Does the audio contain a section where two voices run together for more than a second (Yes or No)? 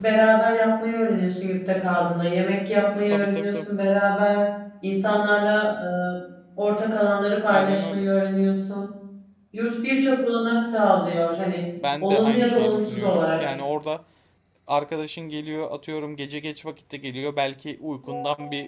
Yes